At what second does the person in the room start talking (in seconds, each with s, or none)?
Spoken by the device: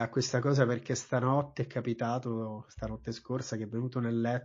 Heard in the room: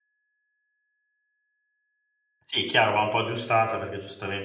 2.4 s